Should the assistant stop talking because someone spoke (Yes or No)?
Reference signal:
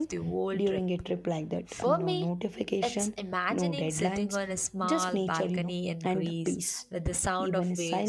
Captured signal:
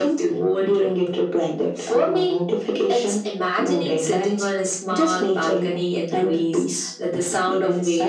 No